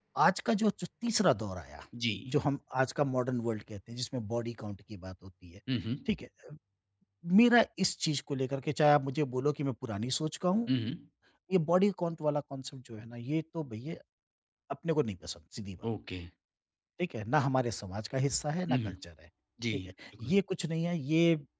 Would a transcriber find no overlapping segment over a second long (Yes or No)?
Yes